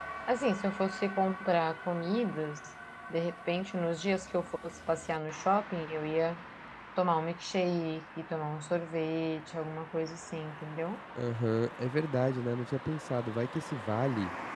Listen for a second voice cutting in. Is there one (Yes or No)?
No